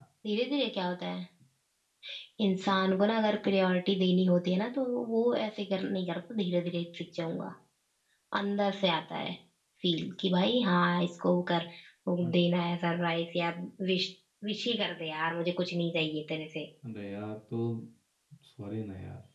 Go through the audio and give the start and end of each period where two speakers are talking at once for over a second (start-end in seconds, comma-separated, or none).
none